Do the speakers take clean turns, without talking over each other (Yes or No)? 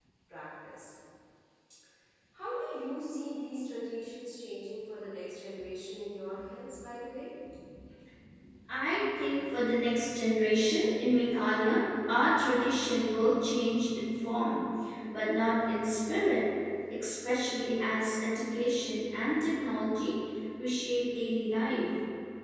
Yes